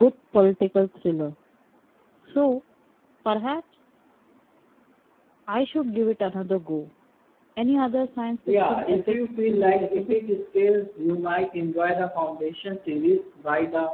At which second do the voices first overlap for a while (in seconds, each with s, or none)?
8.5 s